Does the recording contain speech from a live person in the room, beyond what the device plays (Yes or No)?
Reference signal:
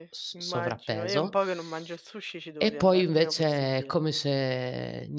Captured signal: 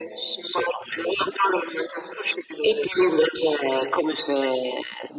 No